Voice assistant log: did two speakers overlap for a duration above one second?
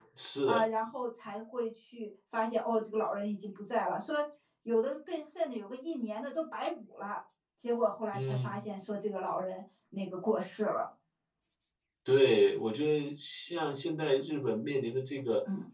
No

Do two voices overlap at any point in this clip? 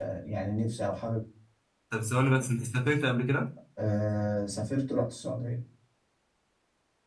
No

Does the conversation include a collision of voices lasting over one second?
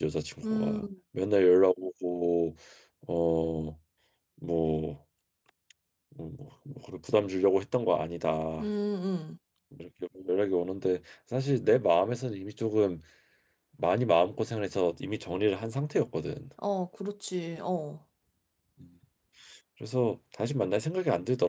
No

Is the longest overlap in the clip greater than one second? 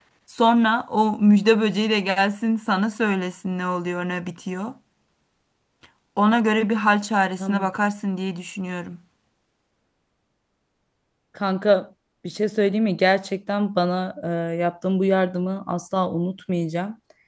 No

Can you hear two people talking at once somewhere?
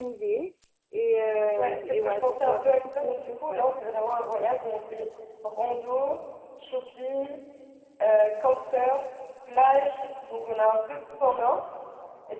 Yes, from 1.6 s

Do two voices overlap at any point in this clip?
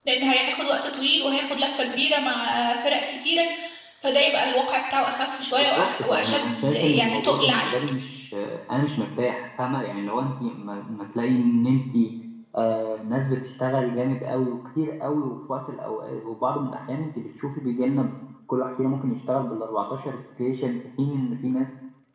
Yes, from 5.6 s

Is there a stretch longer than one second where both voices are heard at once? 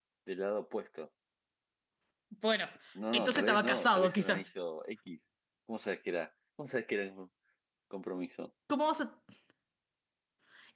Yes, from 3.1 s

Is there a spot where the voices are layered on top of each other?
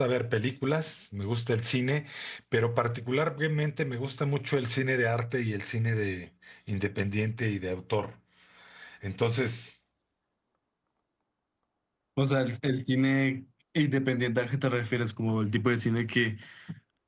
No

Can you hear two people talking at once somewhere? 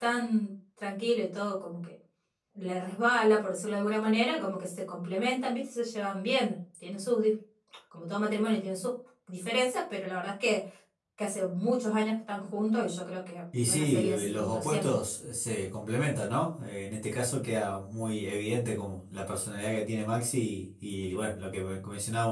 Yes, from 13.5 s

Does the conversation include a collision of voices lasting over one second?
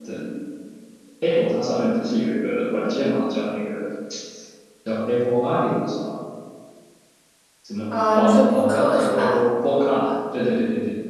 Yes, from 7.9 s

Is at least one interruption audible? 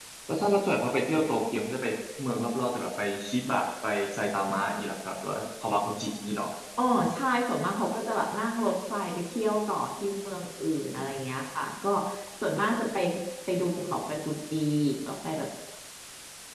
No

